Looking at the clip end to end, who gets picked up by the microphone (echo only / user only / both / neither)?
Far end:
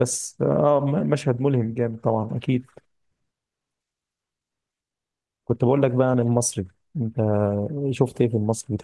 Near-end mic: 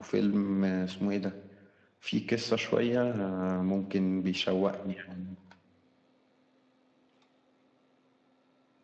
user only